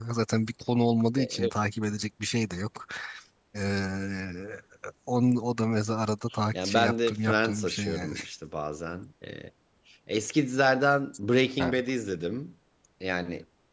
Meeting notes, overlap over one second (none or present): present